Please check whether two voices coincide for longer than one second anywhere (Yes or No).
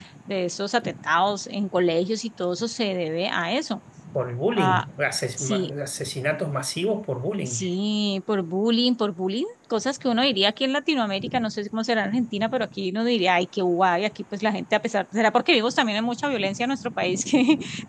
No